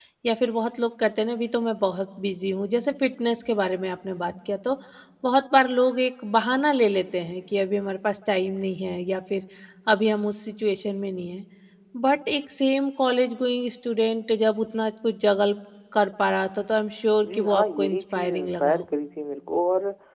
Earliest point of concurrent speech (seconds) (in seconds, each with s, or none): 17.2 s